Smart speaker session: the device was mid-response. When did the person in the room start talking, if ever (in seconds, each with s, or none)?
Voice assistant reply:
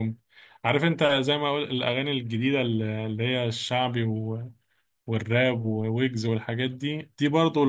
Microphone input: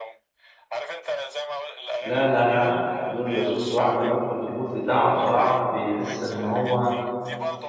2.0 s